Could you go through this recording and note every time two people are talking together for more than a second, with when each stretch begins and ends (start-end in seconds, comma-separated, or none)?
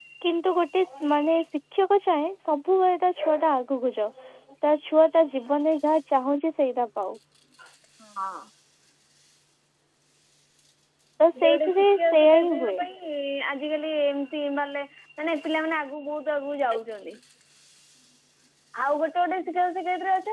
11.4-12.8